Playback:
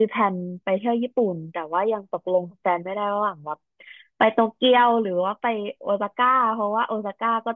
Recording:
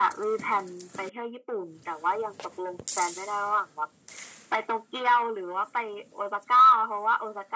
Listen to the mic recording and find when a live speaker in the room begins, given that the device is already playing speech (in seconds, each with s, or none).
none